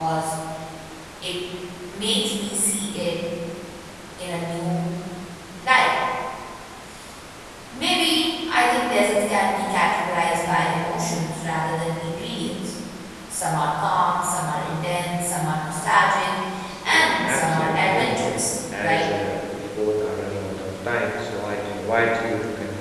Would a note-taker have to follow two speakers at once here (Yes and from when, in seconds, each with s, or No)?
Yes, from 16.9 s